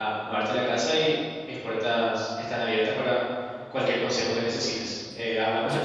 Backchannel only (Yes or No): No